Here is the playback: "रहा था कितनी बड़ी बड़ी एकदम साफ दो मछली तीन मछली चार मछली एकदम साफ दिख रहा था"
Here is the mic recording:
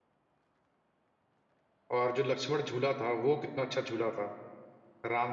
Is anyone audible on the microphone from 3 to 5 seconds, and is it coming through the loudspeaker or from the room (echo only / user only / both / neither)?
user only